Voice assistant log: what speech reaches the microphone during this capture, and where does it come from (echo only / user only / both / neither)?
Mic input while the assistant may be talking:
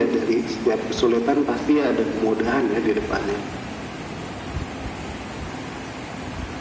echo only